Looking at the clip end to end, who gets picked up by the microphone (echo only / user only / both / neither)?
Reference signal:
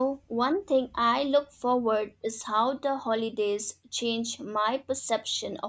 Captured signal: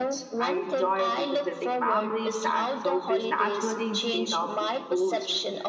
both